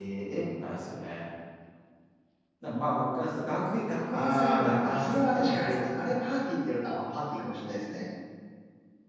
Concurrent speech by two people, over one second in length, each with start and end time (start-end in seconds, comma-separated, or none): 4.1-6.0